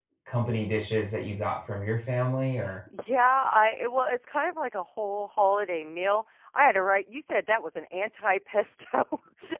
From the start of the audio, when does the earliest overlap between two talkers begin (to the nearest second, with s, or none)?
none